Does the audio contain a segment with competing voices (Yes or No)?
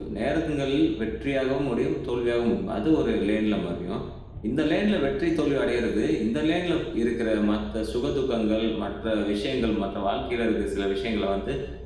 No